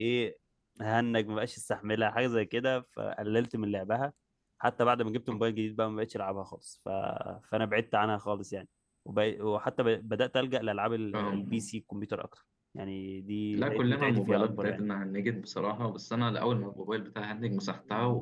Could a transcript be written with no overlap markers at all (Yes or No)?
No